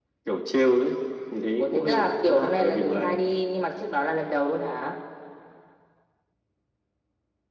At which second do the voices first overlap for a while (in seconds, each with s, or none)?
1.6 s